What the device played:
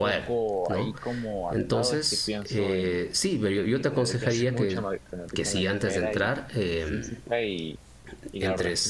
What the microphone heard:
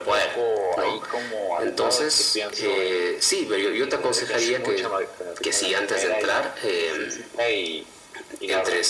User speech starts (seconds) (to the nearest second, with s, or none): none